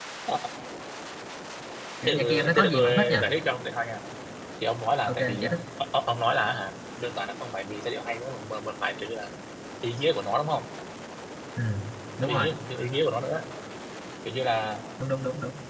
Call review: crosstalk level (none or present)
present